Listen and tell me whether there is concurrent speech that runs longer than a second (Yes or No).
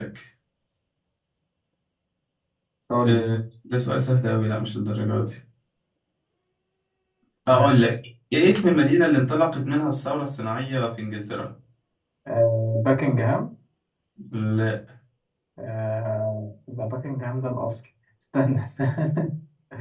No